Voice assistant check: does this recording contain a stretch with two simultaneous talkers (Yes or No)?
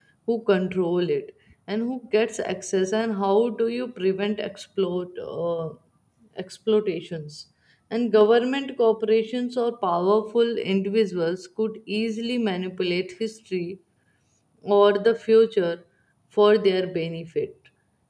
No